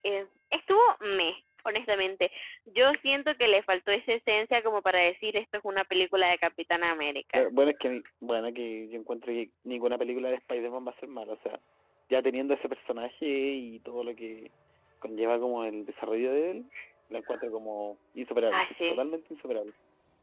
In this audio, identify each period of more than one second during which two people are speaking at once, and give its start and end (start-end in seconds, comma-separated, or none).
none